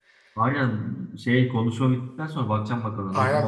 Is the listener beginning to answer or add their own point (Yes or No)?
Yes